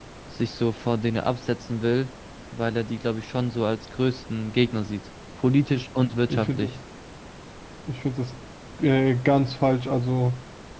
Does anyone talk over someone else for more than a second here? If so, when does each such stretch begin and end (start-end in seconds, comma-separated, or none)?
none